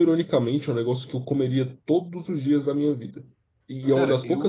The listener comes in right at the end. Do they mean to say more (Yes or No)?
No